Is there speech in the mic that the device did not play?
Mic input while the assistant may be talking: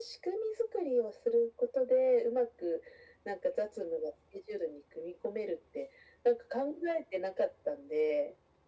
No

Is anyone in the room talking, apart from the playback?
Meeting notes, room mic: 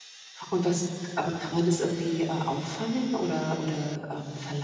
Yes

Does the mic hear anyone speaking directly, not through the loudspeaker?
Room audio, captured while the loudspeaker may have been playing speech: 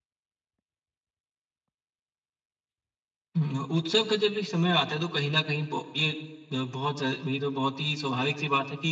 Yes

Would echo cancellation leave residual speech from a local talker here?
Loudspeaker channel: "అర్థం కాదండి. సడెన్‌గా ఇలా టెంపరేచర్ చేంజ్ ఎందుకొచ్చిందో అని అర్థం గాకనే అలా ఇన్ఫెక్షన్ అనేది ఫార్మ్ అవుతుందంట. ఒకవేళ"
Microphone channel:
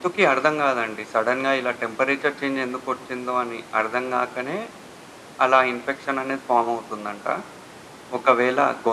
No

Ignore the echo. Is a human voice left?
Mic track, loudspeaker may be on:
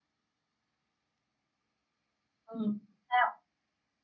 Yes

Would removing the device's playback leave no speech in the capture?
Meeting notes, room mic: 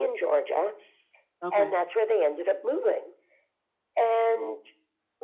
No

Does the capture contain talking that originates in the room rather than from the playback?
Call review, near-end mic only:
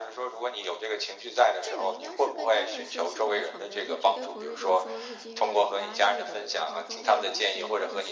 Yes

